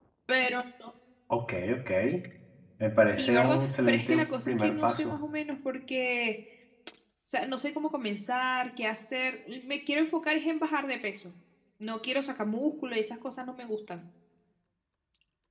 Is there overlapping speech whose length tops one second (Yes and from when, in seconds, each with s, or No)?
Yes, from 3.1 s